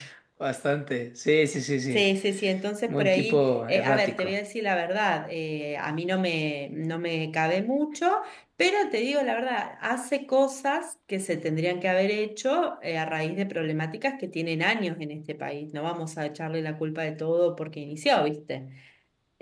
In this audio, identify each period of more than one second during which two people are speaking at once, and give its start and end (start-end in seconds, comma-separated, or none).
2.9-4.3